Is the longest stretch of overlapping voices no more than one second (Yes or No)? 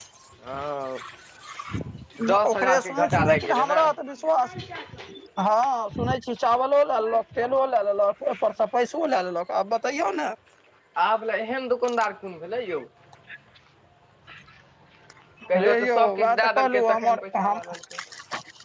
No